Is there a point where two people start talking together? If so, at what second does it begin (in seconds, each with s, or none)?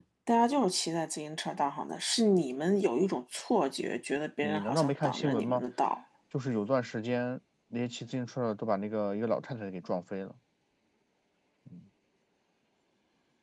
4.4 s